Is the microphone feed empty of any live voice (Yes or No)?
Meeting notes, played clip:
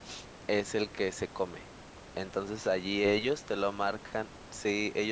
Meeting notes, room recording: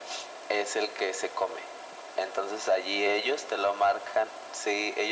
Yes